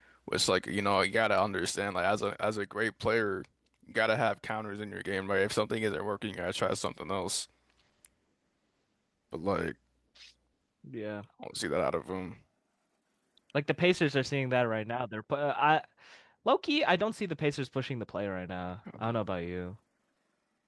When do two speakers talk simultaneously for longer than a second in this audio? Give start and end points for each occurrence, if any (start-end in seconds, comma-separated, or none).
none